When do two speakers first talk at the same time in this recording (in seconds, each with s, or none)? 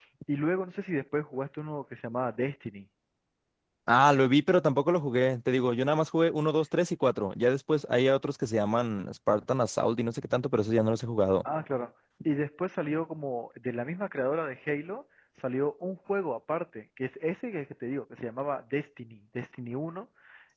none